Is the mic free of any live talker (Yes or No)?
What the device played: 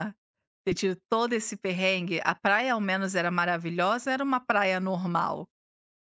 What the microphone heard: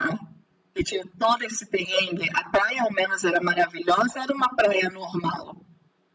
Yes